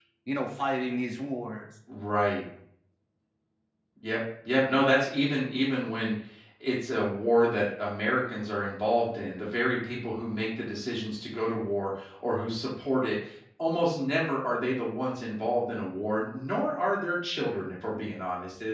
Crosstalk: none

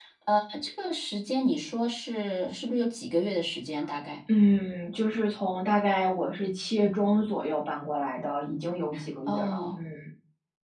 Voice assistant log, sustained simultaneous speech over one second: none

